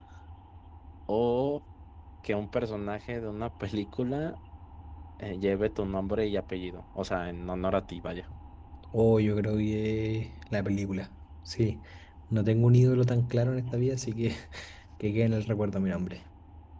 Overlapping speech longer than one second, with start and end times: none

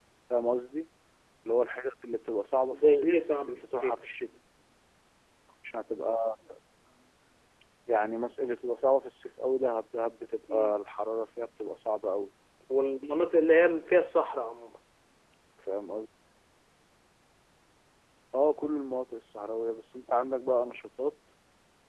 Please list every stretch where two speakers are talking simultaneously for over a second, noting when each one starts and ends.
2.7-4.0

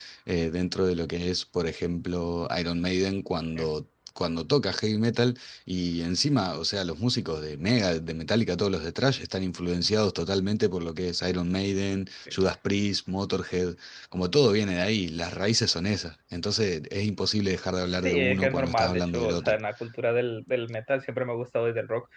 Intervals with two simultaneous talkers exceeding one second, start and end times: 18.0-19.6

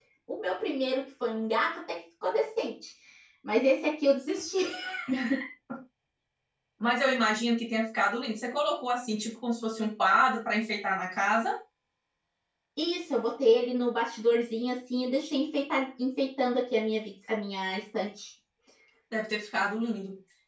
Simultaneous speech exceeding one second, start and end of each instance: none

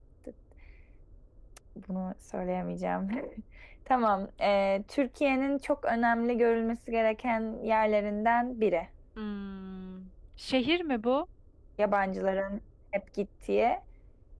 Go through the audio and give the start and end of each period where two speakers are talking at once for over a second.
none

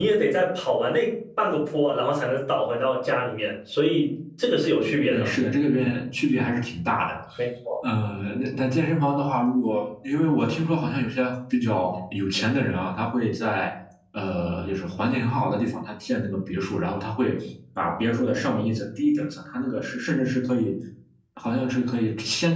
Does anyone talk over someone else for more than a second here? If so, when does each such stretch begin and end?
none

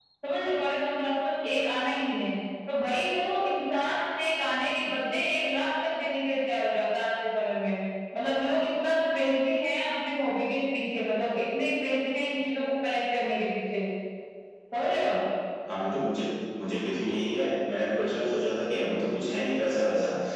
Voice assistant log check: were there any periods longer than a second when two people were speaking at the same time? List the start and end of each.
none

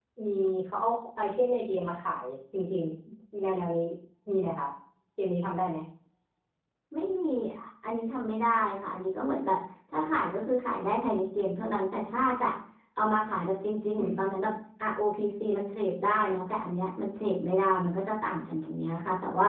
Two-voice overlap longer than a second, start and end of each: none

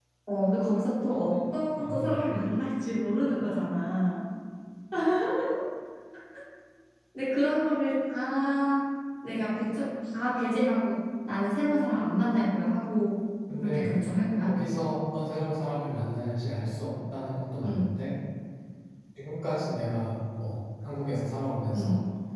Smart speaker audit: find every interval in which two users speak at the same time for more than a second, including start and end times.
none

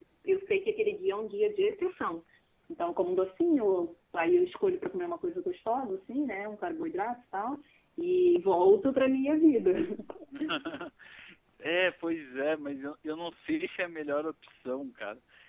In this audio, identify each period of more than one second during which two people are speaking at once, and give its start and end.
none

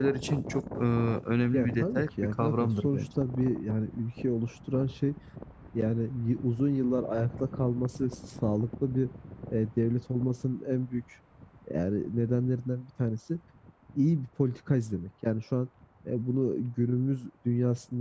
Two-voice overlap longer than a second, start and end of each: 1.5-3.0

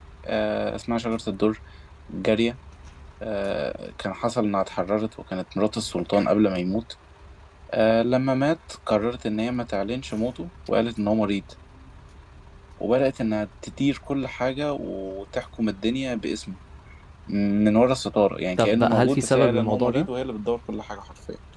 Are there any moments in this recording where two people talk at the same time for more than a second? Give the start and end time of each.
18.6-20.1

